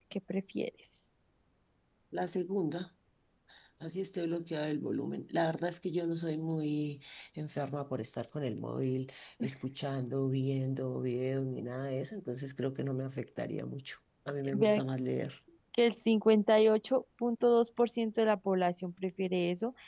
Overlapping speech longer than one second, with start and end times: none

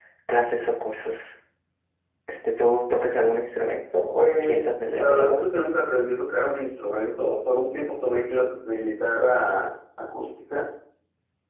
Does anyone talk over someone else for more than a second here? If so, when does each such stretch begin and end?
4.1-5.5

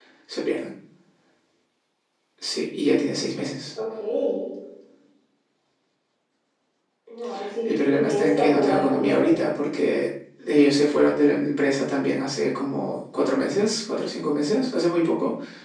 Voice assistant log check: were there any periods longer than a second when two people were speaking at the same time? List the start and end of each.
7.6-9.3

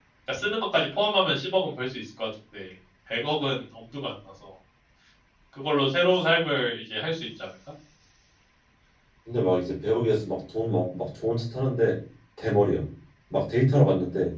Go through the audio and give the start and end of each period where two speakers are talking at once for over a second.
none

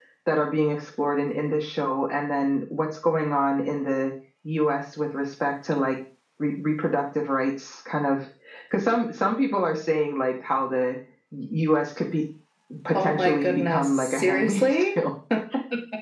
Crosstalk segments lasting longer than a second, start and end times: 12.9-15.0

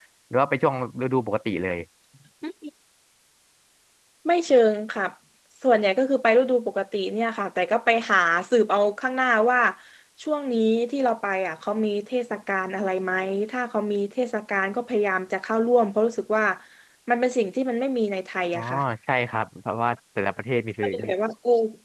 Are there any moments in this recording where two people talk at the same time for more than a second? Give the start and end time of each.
none

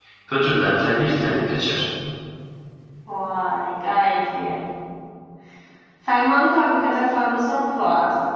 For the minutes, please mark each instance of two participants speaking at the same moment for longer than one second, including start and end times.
none

